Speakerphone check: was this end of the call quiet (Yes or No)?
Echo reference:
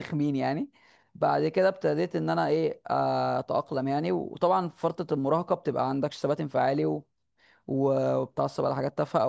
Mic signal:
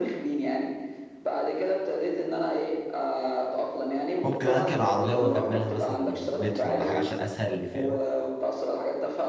No